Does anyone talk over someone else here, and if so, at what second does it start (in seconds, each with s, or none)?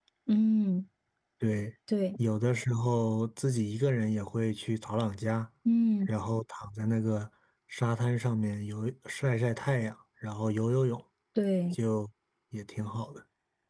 none